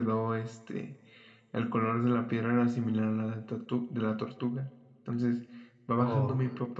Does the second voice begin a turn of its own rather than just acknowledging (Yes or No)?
No